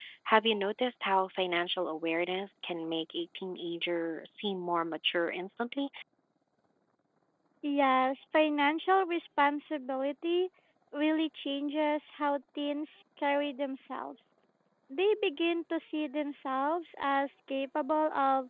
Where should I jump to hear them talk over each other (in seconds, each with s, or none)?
none